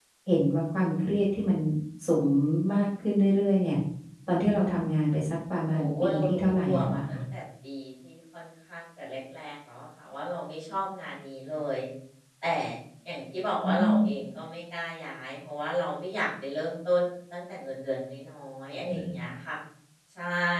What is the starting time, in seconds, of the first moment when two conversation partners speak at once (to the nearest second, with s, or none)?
6 s